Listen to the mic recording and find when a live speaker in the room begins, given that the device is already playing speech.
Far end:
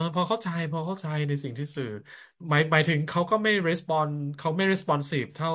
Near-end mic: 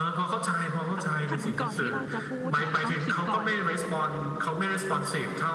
1.0 s

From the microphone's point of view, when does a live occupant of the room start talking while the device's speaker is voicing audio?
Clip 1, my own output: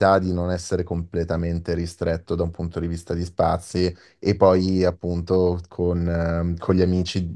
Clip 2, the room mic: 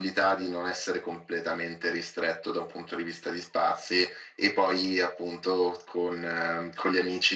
none

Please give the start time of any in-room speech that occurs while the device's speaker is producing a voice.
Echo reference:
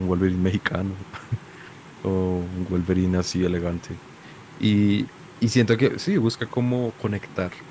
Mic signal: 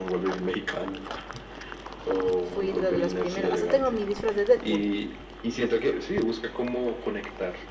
2.4 s

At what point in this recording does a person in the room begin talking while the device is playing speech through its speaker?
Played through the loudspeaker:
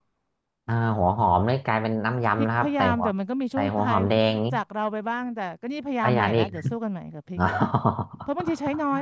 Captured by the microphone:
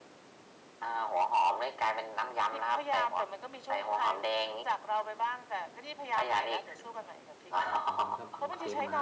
7.6 s

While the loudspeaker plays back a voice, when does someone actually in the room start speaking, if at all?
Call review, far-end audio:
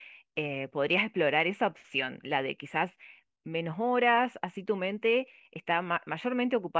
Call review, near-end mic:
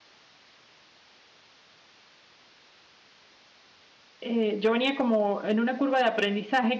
4.2 s

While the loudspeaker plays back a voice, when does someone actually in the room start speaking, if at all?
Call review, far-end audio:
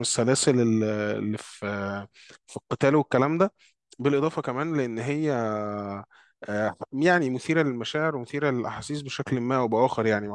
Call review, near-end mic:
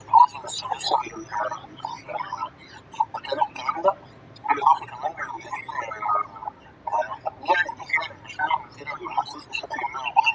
none

